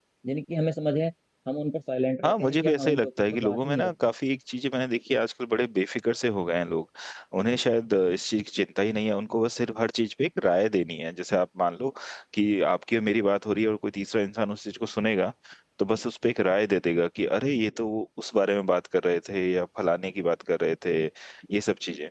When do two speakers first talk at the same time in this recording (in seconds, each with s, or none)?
2.2 s